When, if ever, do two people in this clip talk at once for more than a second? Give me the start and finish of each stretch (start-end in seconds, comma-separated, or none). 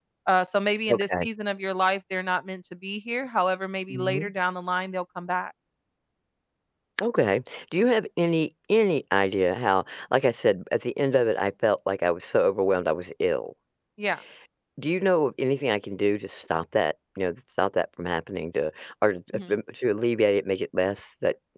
none